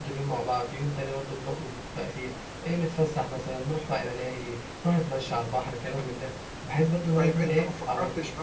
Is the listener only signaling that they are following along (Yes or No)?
No